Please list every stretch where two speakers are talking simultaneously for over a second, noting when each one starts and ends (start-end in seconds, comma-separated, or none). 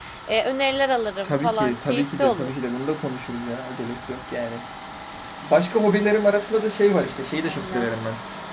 1.2-2.5